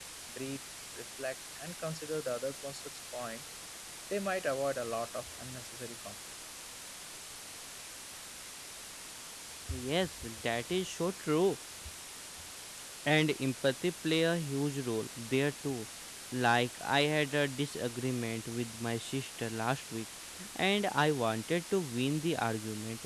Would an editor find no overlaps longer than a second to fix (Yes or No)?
Yes